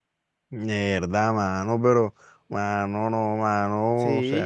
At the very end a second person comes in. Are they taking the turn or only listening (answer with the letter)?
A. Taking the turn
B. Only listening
A